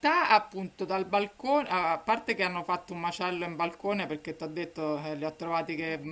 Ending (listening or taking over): listening